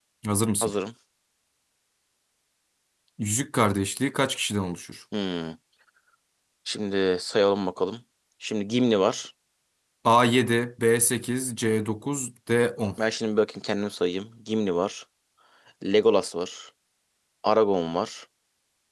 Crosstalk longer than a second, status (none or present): none